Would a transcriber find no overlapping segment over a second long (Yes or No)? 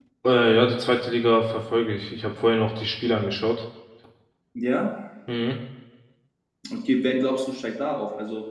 Yes